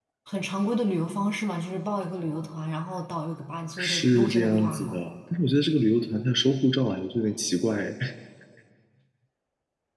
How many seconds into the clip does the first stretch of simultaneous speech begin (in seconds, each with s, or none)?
3.8 s